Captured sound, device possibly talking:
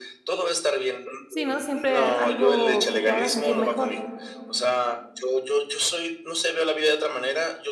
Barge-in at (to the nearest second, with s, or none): 1 s